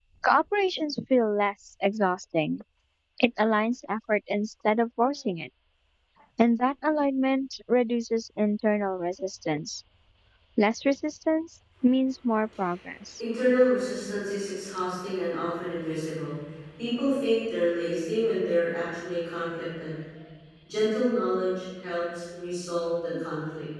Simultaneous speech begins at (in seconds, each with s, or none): none